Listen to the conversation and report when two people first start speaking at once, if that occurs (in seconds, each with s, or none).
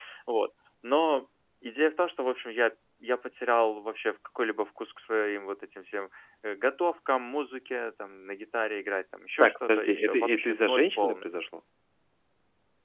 9.4 s